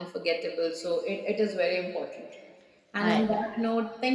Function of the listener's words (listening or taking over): listening